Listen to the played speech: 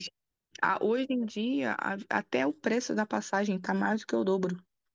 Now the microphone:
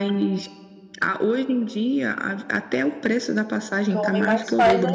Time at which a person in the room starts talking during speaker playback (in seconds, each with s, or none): 3.9 s